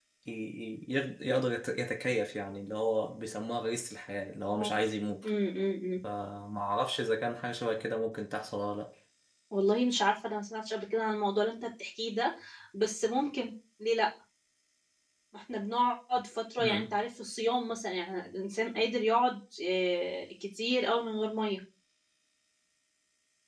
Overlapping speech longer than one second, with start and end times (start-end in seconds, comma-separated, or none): none